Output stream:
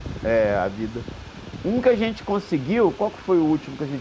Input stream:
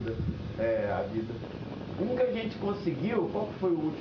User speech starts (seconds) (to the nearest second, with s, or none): none